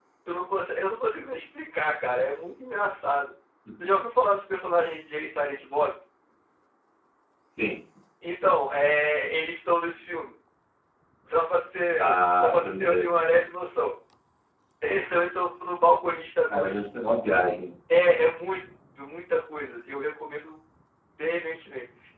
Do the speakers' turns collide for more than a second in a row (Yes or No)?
Yes